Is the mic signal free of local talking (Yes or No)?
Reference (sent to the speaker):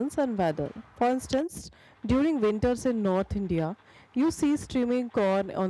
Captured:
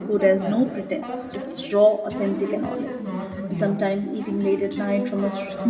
No